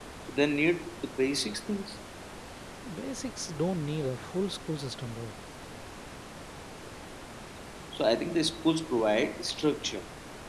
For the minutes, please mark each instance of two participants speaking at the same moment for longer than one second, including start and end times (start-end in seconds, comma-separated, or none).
none